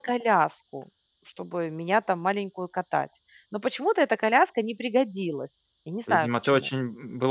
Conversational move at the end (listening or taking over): taking over